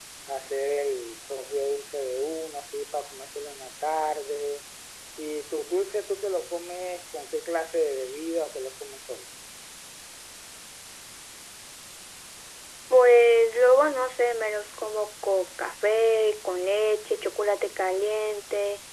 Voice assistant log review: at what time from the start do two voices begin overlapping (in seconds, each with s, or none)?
none